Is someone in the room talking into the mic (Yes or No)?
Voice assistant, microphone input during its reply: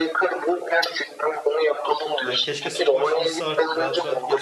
Yes